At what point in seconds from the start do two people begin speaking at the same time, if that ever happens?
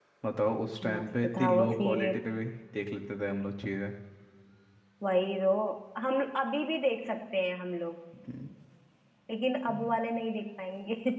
0.9 s

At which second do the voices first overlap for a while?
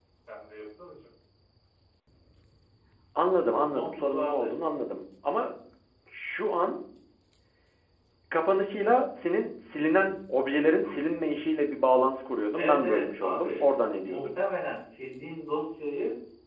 3.5 s

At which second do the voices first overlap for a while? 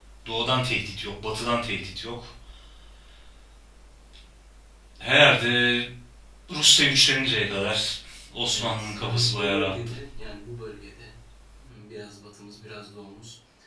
8.5 s

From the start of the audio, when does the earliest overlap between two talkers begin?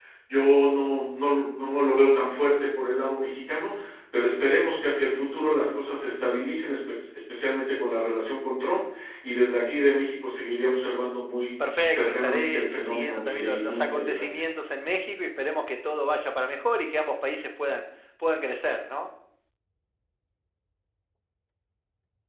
11.9 s

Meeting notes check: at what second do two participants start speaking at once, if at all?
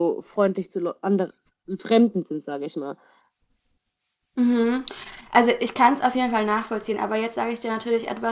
none

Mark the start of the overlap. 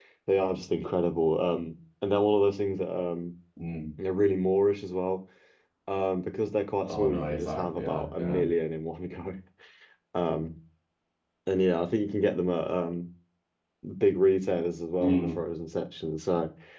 6.9 s

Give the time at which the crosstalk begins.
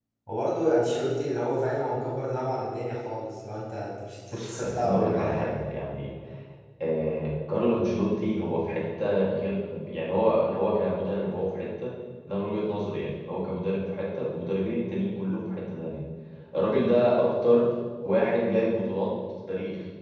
4.3 s

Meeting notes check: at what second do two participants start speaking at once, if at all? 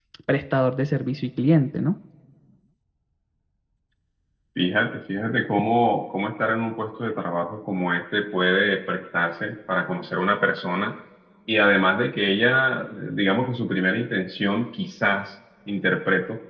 none

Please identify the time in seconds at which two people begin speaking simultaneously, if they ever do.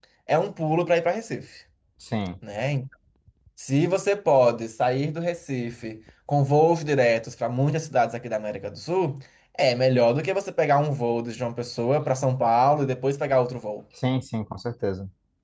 none

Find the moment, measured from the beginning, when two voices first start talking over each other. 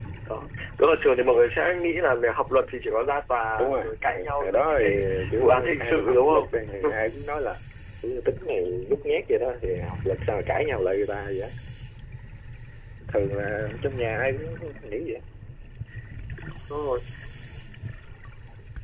3.6 s

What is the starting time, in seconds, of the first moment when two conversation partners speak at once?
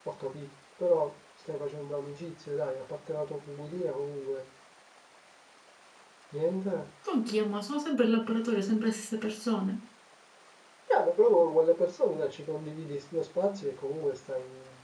none

